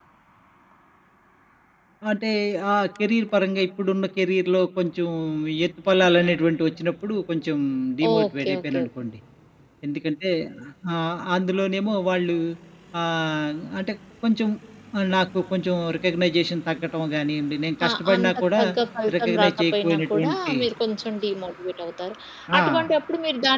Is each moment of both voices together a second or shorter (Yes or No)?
No